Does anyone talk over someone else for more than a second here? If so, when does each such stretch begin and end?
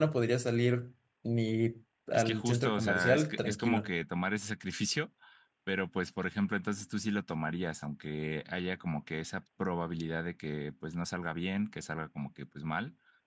2.1-3.9

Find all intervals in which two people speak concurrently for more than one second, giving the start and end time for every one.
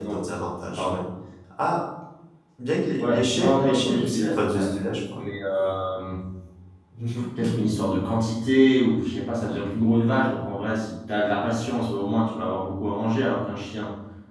3.0-4.8

